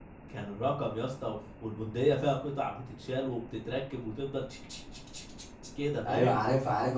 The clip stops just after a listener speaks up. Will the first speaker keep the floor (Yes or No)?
No